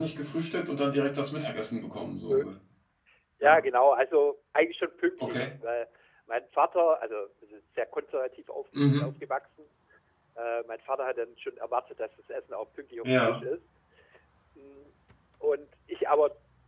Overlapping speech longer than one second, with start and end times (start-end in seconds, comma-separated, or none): none